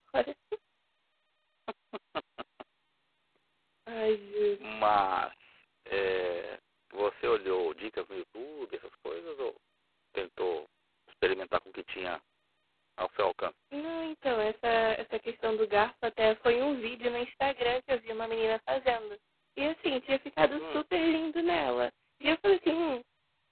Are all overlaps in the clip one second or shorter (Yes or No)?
Yes